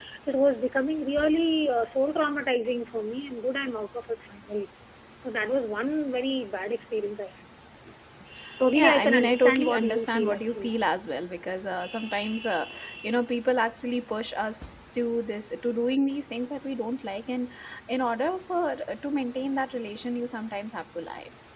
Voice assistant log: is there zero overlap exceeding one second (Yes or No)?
No